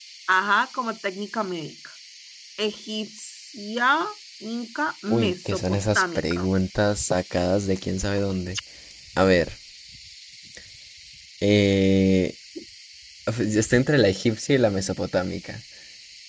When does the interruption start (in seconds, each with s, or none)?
5.1 s